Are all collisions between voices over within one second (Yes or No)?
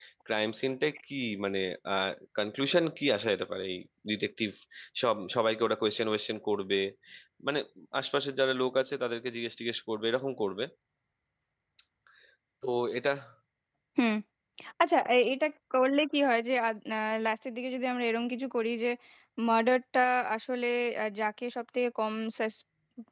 Yes